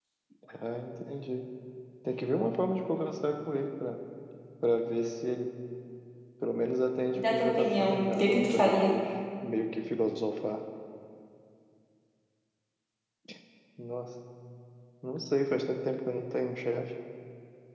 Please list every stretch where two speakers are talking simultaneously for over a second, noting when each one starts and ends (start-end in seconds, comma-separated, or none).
7.1-9.0